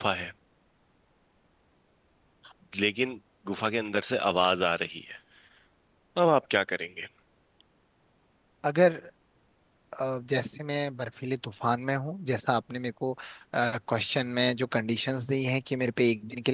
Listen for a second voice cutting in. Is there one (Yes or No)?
No